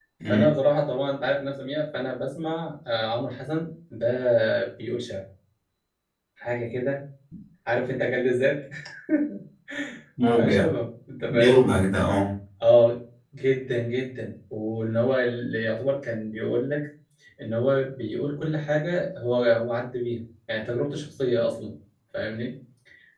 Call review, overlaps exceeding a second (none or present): none